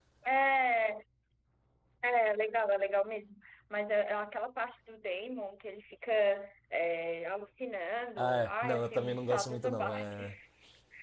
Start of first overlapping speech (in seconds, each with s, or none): 8.2 s